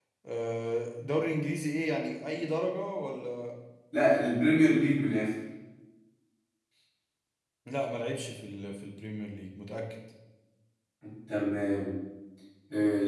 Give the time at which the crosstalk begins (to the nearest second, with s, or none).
none